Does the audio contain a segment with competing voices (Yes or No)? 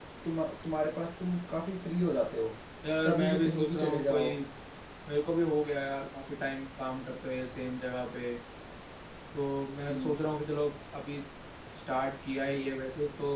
Yes